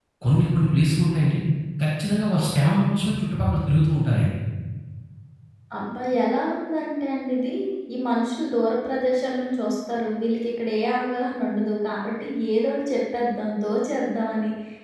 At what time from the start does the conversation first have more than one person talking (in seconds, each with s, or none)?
none